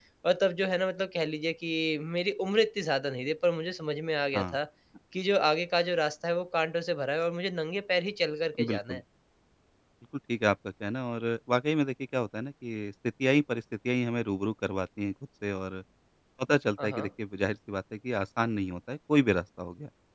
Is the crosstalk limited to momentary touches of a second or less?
Yes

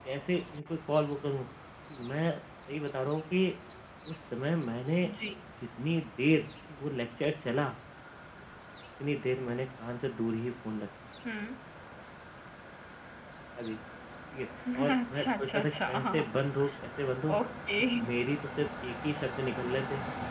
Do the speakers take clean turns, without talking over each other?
No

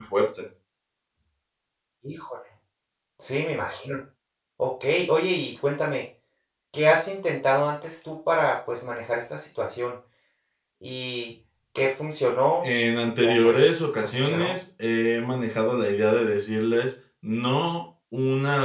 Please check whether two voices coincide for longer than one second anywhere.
Yes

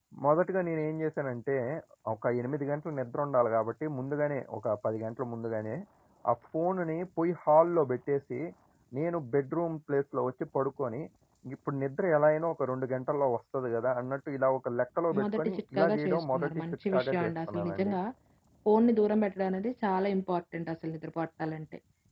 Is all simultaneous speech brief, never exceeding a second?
No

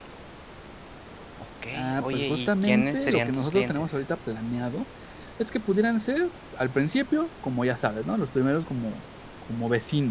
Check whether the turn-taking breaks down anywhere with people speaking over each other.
Yes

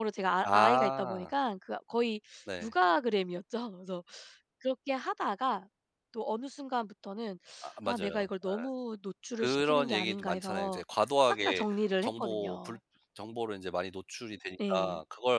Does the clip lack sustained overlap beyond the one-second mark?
No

